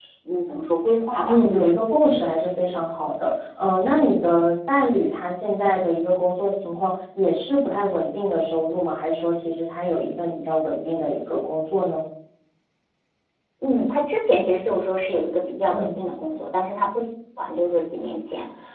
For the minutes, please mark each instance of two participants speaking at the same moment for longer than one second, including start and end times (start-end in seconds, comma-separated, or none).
none